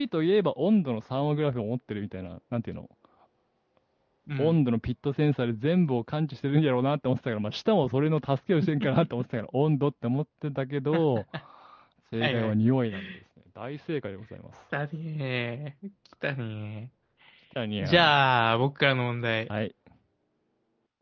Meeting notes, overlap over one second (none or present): none